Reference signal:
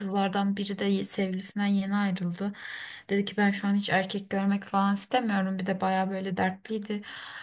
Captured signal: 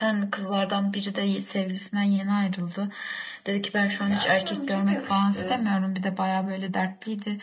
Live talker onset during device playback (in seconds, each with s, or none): 4.0 s